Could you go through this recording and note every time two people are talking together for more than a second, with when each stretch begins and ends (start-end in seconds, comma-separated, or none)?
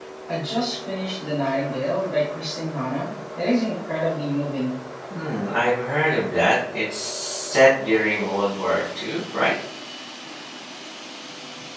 none